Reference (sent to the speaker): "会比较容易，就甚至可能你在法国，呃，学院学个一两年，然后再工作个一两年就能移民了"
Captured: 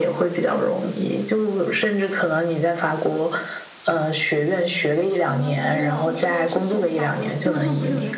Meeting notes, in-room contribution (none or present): present